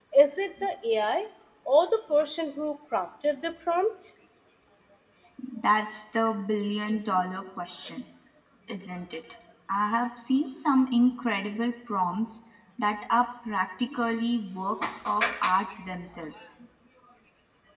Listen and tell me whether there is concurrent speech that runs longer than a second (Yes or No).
No